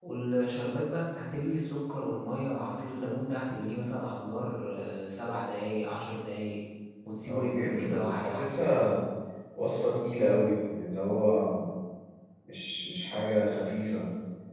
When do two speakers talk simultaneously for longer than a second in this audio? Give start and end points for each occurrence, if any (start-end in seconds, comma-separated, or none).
7.3-8.5